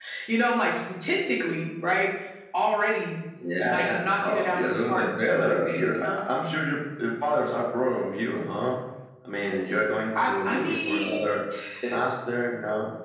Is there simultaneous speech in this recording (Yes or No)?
Yes